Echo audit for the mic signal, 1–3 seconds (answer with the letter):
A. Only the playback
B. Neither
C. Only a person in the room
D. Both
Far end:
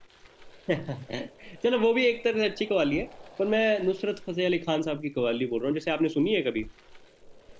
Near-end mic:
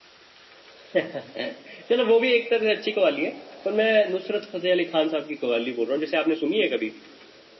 A